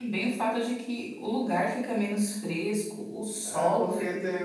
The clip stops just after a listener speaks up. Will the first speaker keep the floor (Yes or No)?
No